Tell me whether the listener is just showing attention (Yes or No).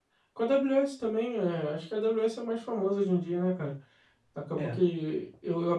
Yes